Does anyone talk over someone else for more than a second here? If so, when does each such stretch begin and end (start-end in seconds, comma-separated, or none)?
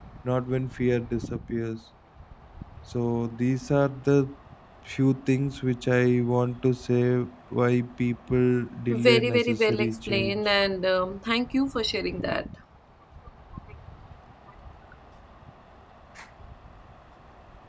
8.9-10.4